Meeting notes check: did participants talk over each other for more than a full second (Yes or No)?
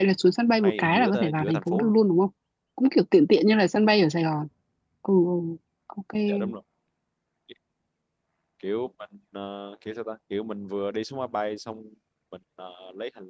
Yes